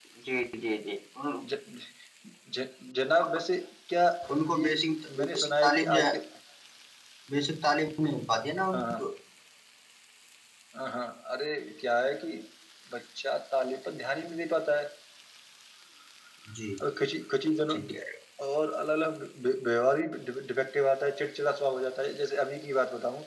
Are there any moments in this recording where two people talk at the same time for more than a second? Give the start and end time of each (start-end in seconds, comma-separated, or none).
4.6-6.0